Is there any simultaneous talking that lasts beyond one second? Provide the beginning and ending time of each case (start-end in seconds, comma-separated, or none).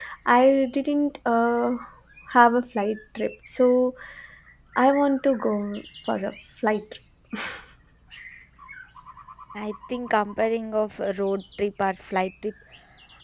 none